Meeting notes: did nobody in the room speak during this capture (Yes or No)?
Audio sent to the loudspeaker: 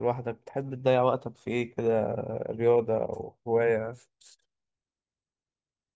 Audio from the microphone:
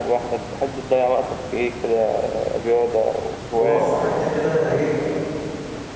No